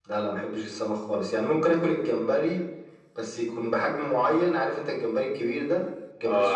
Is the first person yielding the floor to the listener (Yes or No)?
No